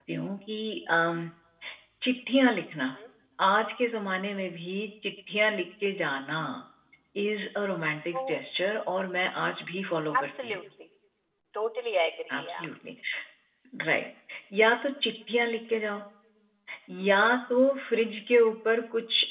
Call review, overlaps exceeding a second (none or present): none